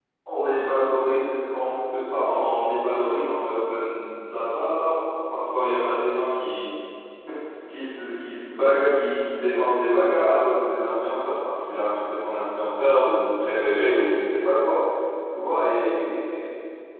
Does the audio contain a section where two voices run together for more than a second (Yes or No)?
No